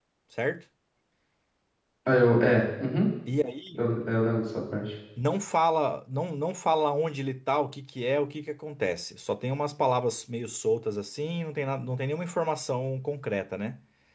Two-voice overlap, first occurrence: none

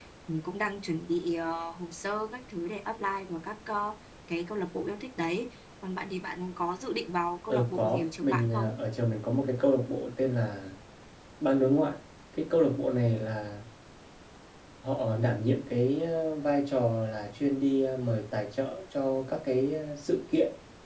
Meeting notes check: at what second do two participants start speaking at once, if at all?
7.5 s

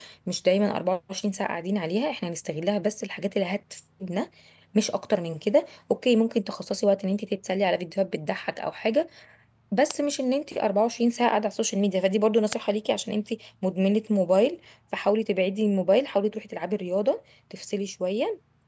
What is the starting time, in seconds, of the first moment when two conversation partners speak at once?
none

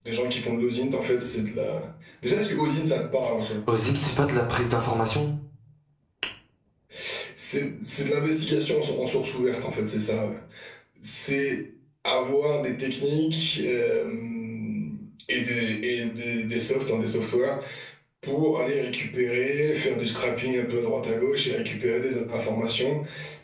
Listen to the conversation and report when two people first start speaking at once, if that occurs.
none

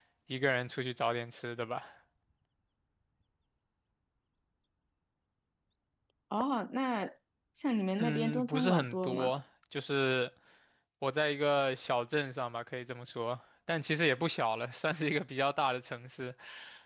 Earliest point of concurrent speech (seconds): 8.0 s

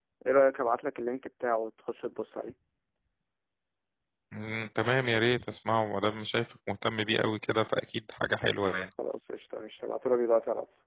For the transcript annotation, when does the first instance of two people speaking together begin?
none

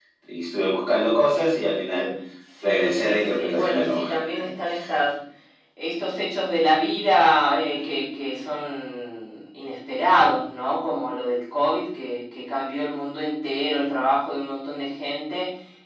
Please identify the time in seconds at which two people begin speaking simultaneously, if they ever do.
2.6 s

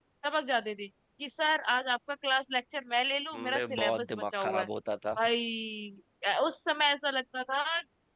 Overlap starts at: 3.3 s

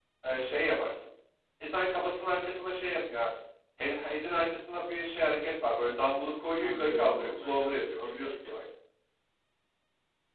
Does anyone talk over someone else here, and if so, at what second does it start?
6.6 s

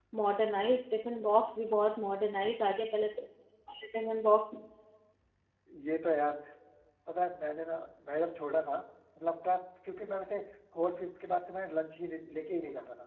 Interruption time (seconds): none

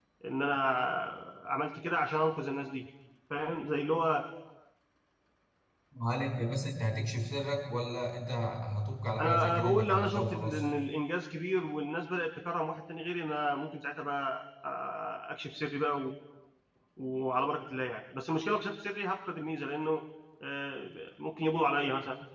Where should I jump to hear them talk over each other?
9.2 s

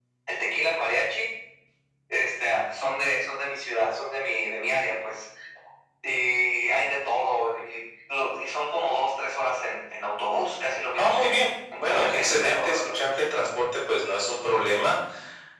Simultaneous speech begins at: 11.0 s

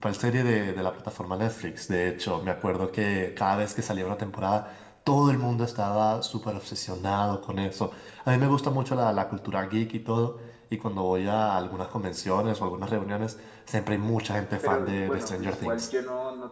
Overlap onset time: 14.6 s

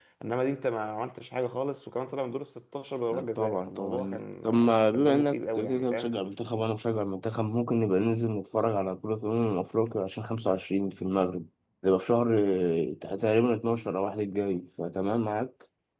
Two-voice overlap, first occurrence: 3.1 s

